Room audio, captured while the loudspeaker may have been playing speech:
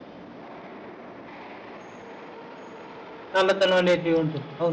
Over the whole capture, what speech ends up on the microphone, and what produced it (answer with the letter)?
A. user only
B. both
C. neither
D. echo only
A